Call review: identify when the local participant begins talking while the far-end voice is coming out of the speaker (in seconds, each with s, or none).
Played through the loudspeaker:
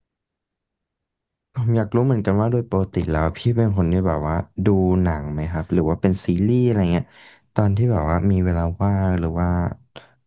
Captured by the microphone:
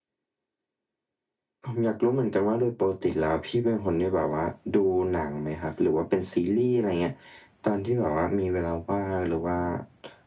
none